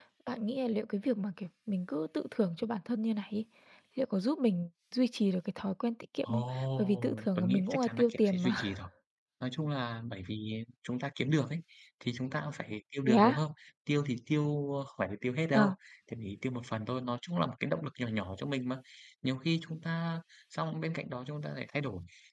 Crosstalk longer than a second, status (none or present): present